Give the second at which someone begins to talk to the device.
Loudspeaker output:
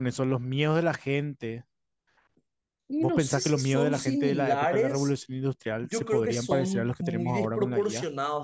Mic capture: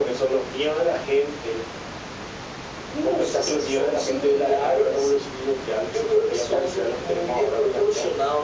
none

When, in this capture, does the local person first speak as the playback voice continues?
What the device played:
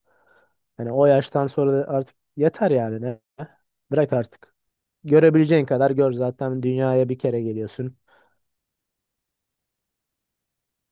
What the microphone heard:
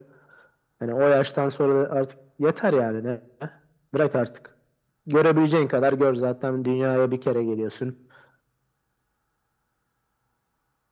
none

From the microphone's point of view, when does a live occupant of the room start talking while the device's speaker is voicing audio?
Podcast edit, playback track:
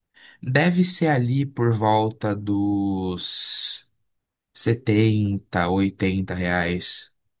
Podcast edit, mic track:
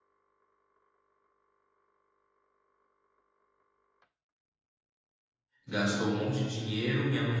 5.7 s

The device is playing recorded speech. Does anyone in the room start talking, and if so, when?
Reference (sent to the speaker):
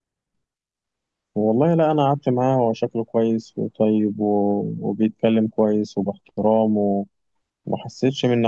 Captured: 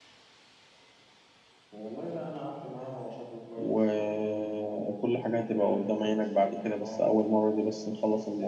3.6 s

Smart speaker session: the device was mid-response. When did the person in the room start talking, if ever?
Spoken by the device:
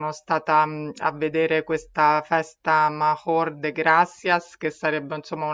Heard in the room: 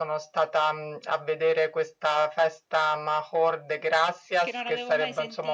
4.4 s

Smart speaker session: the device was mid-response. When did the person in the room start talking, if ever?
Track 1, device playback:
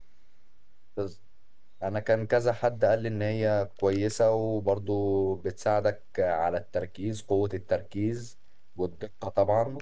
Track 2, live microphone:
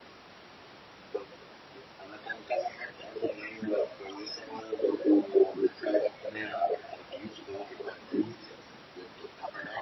6.2 s

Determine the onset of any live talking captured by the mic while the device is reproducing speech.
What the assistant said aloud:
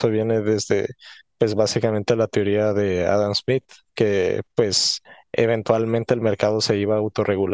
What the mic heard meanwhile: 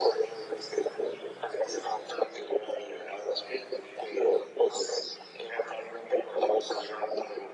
none

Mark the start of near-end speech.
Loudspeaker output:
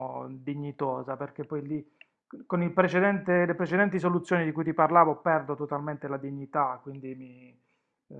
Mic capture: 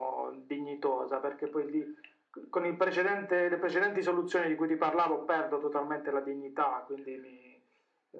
none

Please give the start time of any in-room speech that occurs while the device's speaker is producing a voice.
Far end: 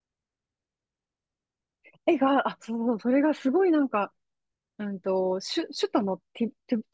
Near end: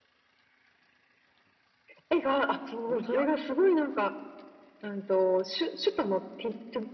2.9 s

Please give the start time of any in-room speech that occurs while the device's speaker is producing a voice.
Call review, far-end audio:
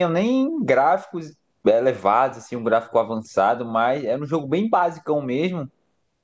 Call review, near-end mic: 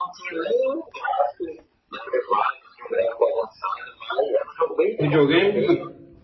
5.0 s

